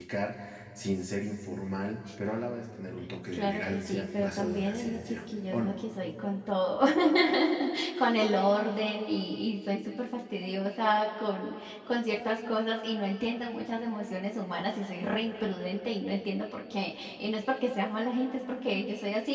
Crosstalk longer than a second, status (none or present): present